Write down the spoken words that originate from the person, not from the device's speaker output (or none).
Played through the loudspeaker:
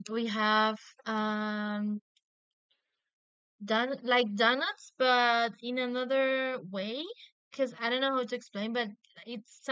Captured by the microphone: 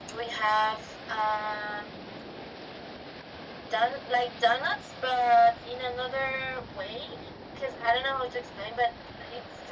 none